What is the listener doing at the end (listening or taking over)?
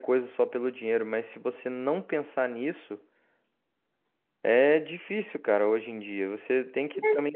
listening